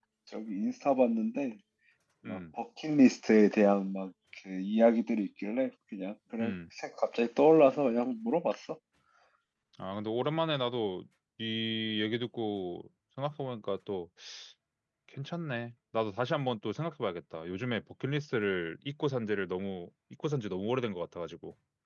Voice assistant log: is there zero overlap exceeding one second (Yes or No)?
Yes